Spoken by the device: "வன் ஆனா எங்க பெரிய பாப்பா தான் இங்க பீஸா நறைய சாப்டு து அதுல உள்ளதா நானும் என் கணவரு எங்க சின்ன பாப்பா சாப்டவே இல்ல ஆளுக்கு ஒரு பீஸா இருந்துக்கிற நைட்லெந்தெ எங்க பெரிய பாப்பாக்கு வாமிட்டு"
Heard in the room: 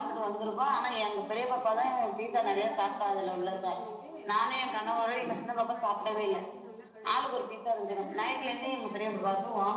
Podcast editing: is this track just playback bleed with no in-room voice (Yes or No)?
No